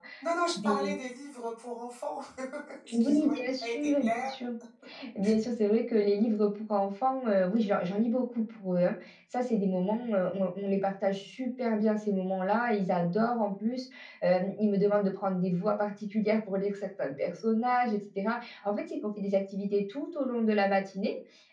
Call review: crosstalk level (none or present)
present